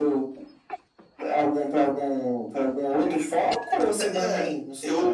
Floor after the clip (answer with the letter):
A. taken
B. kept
A